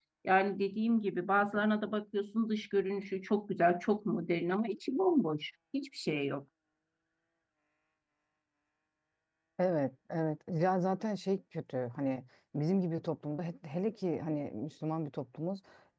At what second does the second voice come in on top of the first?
none

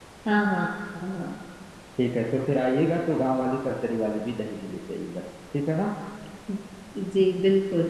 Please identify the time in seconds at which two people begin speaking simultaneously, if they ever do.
none

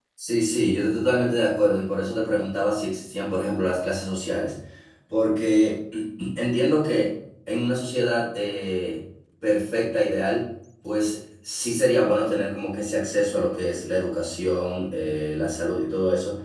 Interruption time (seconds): none

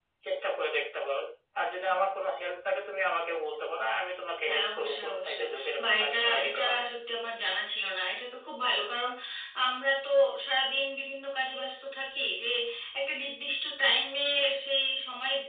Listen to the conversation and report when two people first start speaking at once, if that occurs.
4.5 s

